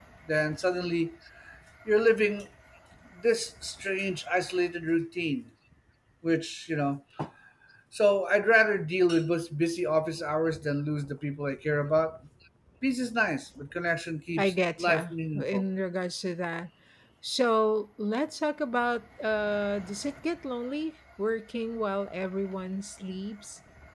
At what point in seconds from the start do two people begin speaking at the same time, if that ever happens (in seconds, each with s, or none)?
14.4 s